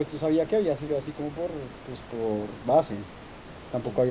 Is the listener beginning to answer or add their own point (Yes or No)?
No